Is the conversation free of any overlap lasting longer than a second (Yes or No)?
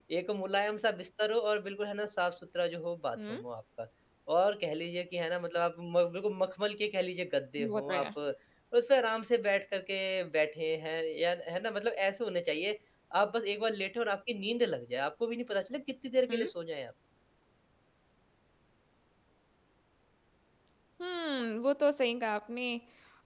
Yes